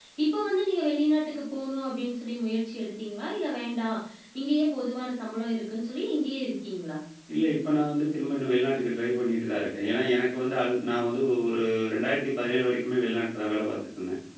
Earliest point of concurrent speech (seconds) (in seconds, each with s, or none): none